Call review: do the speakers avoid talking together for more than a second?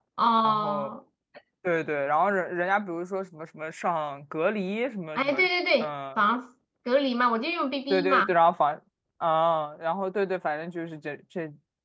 Yes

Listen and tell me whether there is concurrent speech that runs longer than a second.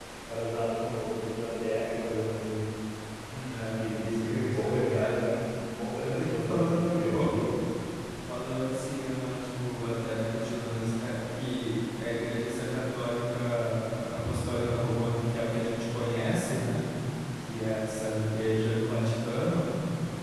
Yes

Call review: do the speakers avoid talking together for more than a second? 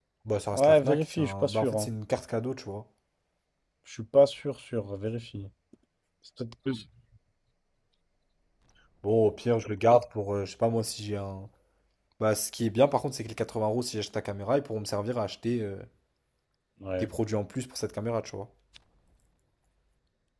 No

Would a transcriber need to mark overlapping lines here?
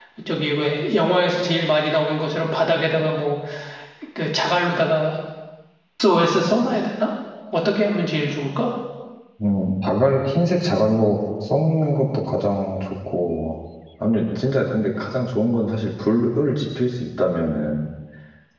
No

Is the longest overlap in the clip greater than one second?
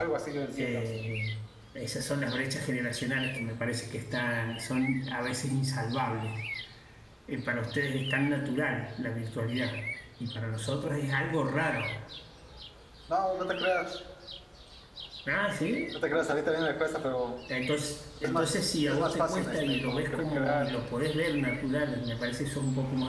Yes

